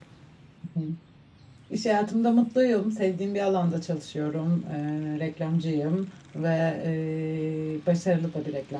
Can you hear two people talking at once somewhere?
No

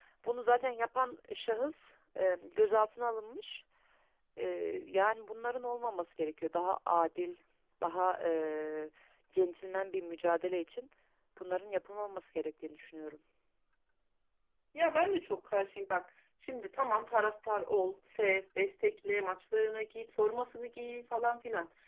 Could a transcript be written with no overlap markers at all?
Yes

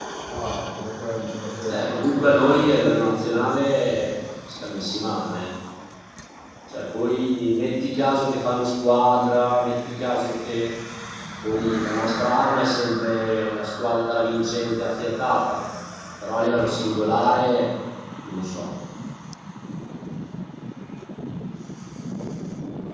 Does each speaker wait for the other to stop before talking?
No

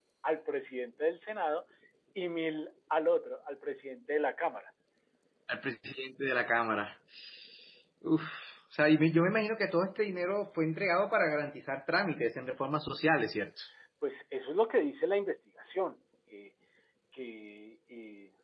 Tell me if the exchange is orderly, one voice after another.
Yes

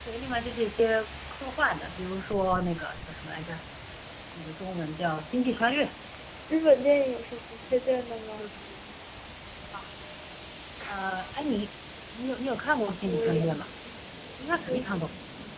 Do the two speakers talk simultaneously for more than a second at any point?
No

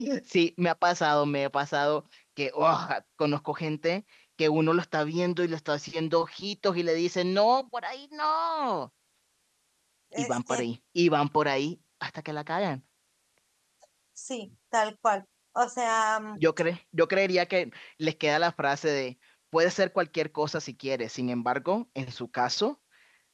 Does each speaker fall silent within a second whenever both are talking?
Yes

